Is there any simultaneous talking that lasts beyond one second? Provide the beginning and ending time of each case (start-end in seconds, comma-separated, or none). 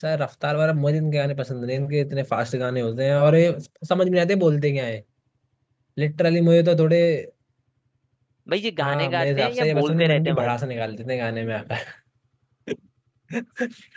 8.8-10.5